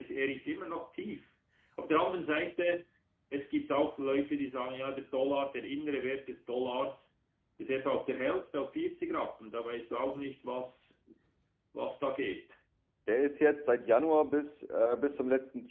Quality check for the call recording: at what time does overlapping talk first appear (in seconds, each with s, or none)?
none